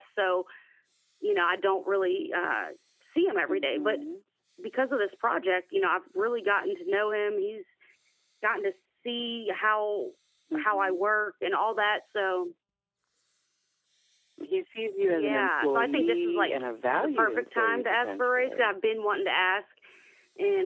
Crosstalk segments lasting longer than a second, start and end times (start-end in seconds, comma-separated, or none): 15.1-16.5, 17.0-18.7